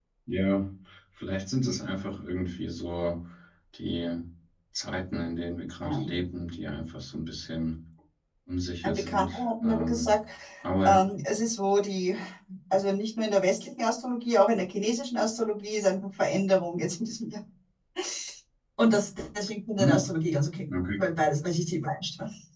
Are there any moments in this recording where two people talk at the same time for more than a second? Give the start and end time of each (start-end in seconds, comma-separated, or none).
8.8-10.1